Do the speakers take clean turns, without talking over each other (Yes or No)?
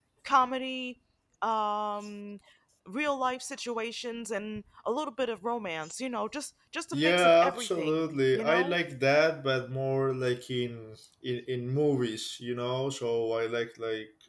No